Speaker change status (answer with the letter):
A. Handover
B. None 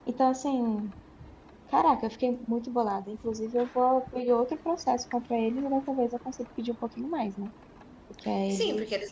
A